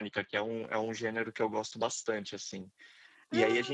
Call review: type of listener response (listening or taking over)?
listening